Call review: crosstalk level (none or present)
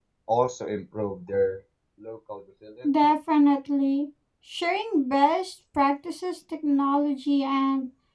none